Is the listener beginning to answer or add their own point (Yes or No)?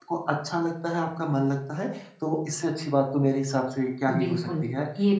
Yes